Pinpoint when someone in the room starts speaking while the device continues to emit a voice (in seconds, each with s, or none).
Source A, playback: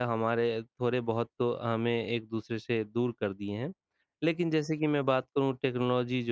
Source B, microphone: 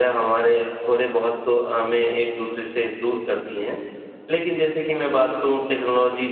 none